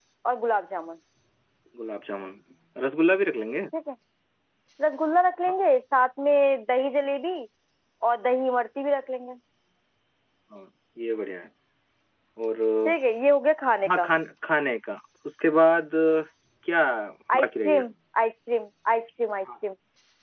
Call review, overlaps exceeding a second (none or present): none